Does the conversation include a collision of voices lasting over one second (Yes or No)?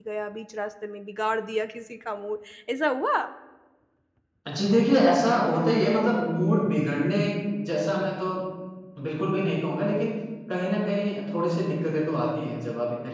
No